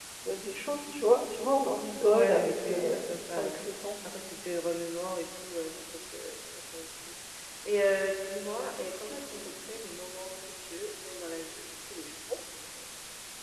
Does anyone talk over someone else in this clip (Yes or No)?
Yes